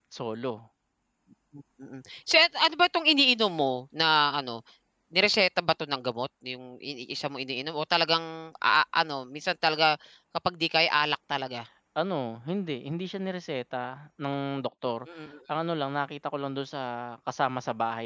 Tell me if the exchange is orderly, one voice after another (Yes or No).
Yes